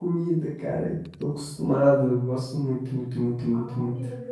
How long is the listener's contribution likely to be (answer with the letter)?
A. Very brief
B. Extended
B